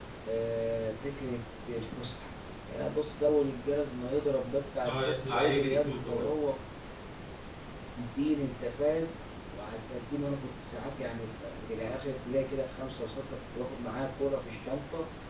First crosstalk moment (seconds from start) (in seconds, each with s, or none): 4.8 s